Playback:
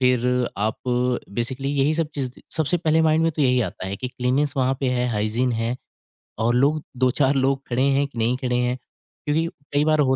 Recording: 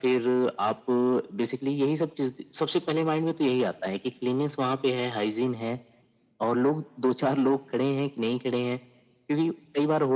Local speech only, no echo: none

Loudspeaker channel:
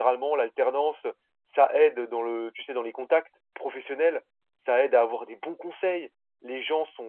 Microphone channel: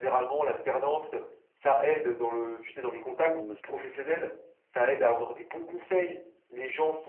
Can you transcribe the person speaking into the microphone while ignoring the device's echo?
Pendant le master deux.

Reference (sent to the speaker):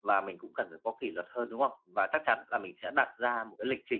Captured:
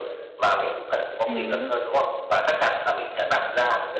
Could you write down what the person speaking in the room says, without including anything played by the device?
Ừm.

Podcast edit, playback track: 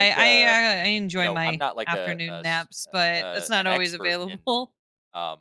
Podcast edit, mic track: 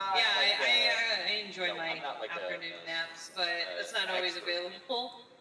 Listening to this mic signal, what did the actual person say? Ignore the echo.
none

